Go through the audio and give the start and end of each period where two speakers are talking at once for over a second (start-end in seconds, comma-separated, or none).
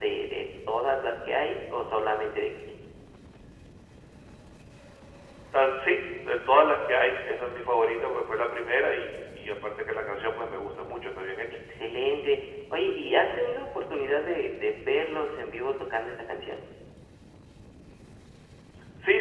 none